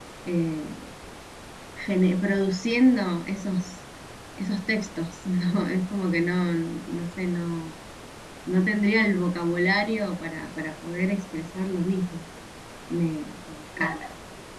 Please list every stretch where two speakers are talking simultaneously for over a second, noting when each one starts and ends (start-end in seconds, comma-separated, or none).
none